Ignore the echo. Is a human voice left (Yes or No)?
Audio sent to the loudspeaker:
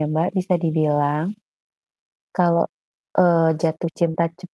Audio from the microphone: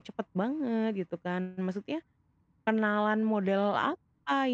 Yes